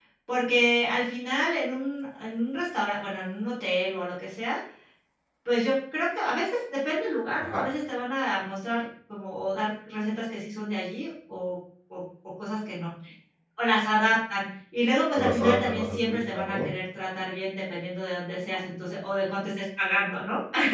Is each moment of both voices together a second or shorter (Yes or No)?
No